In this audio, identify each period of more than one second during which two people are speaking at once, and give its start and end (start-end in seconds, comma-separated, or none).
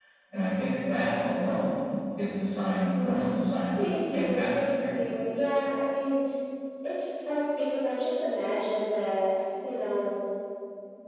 3.8-5.1